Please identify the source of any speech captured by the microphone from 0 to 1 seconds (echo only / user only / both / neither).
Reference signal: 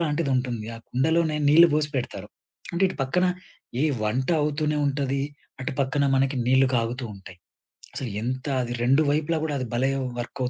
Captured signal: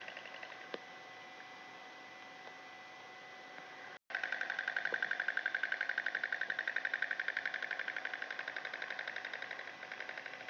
neither